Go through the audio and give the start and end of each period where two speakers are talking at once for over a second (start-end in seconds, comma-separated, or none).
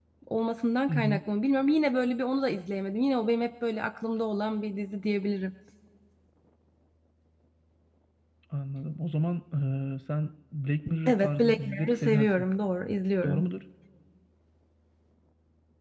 11.1-12.4